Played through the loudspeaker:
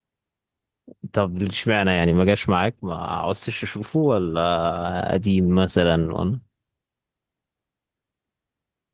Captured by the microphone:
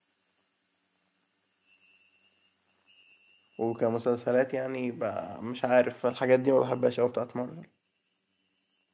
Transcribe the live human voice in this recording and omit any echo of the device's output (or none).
وكمسلسلات يعني ب- مش عارف الحاجات دي ما بحبهاش أوي بتاعت مارفل